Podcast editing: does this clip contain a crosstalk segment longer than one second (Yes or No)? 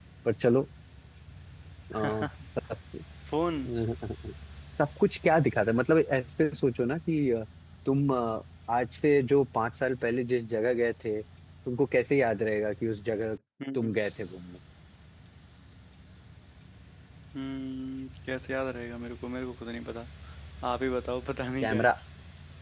No